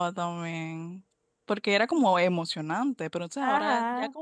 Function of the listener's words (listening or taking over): listening